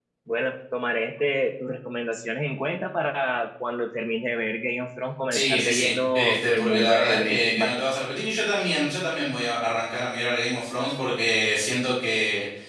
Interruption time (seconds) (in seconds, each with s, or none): 5.3 s